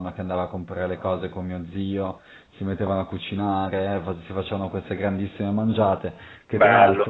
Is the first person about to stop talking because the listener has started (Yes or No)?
No